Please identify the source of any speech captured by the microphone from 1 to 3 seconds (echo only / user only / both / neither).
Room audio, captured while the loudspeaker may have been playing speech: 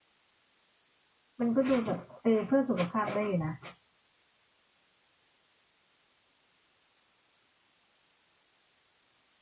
user only